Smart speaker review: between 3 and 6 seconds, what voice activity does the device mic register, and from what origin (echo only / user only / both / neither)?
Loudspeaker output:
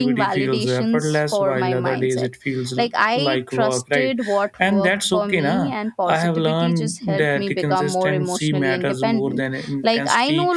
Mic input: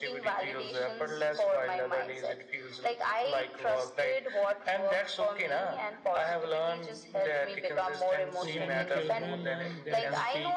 echo only